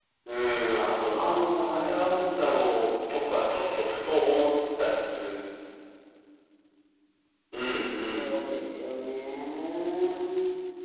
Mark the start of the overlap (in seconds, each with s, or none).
1.1 s